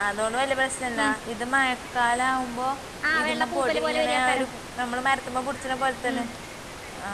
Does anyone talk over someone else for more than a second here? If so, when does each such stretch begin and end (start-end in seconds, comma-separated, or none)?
3.2-4.5